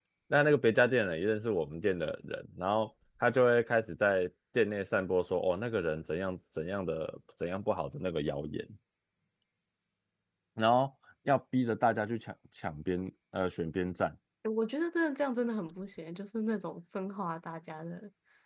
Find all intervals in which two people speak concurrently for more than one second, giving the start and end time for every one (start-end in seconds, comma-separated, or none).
none